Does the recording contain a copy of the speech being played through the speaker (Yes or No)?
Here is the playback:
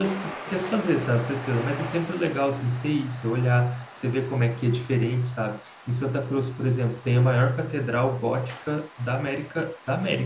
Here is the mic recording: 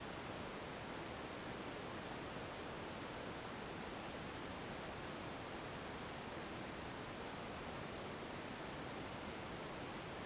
No